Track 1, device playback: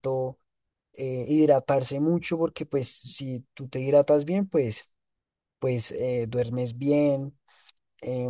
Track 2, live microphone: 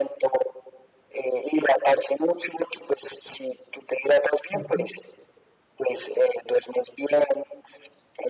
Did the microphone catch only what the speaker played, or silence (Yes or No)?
No